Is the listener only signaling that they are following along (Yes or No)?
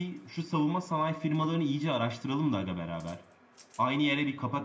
Yes